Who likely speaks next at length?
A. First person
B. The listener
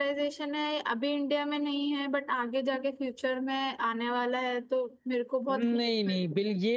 B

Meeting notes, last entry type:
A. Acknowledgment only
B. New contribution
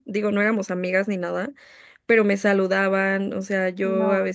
A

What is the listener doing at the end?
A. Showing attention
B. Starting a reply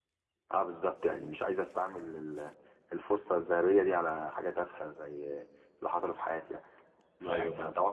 A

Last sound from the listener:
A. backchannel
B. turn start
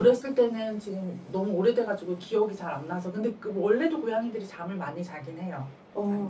B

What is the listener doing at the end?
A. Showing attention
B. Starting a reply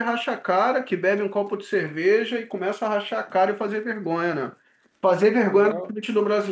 A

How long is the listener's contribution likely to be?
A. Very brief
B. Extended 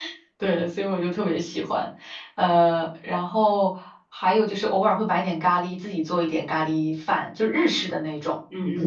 B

